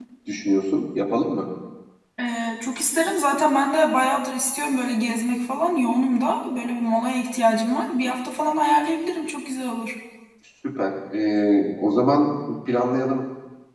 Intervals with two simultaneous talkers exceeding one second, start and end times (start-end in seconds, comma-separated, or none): none